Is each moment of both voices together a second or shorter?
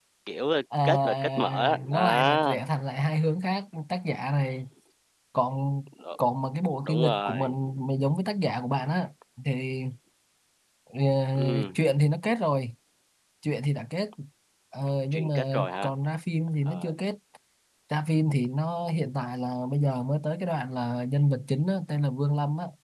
No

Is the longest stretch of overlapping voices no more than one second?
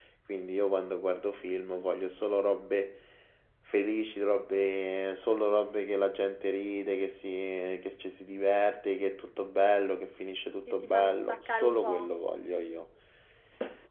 No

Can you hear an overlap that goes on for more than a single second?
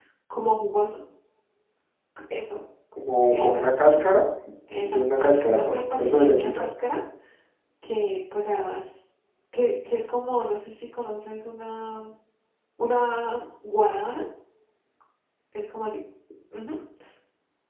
Yes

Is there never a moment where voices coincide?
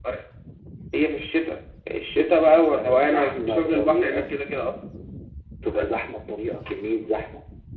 No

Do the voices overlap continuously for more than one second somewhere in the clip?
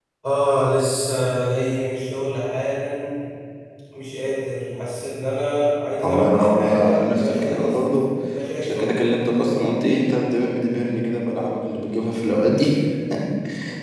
Yes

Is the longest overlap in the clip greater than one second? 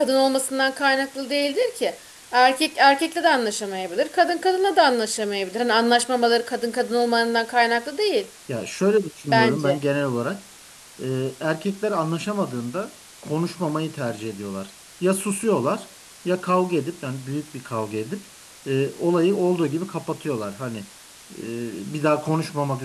No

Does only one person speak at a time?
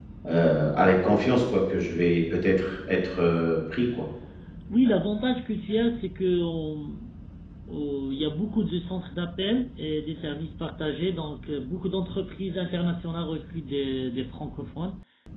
Yes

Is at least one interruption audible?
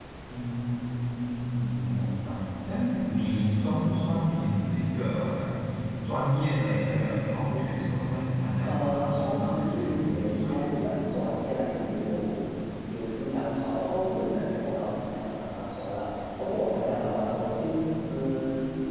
Yes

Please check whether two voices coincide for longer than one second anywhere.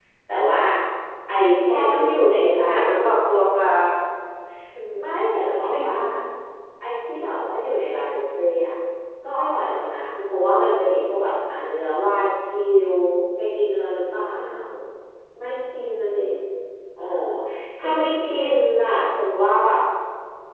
Yes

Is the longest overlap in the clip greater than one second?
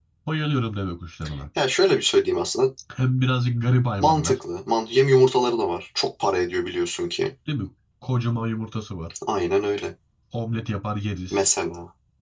No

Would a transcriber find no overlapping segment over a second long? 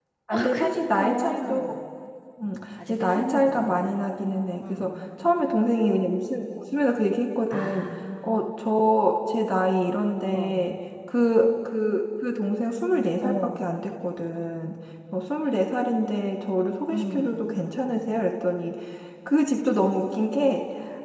No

